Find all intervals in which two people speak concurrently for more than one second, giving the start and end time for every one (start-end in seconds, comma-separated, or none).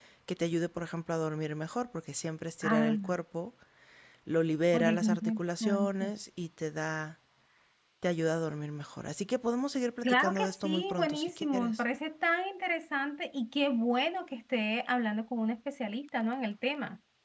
4.7-6.1, 10.0-11.8